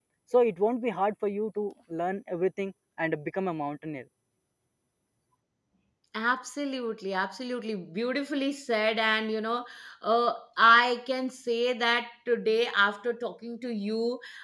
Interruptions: none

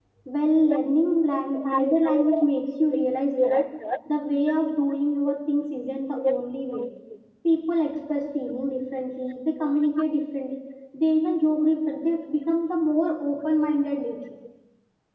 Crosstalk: present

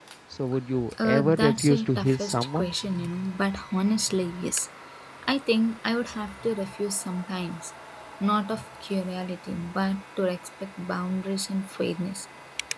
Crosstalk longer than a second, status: present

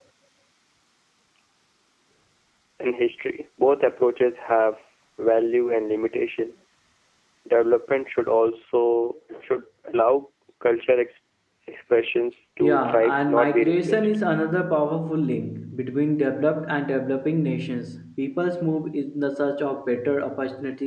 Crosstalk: present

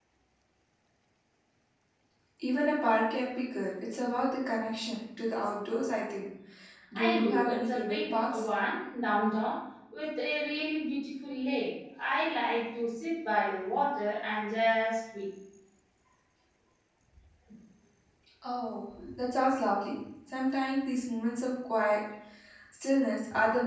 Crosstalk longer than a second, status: present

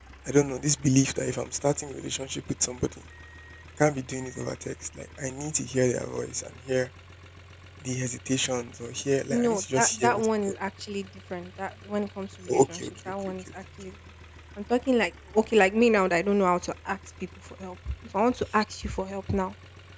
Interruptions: present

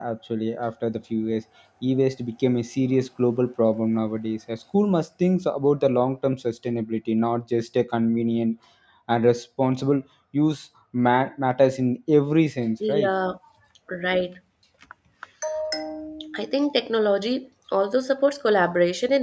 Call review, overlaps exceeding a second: none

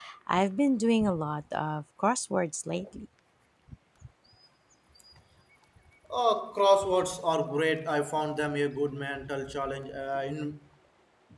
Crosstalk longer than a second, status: none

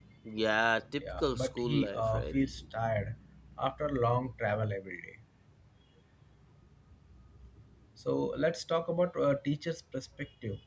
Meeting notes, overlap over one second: present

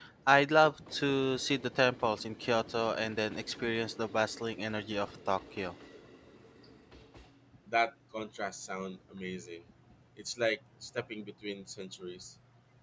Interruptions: none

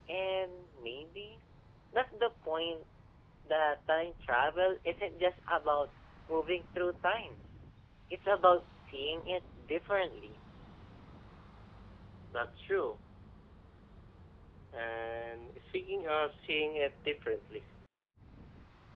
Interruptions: none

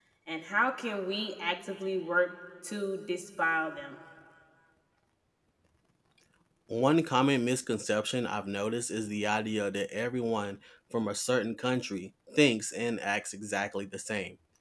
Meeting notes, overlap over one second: none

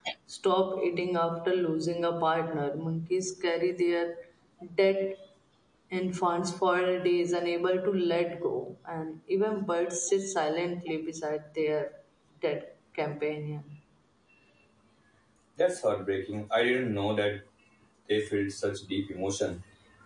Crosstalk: none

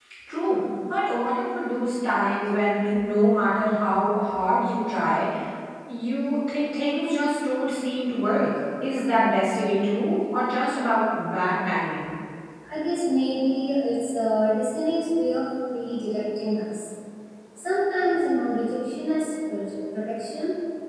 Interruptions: none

